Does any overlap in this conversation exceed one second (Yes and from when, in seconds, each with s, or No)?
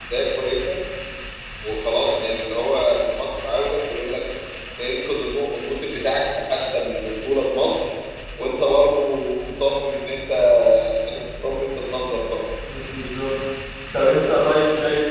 No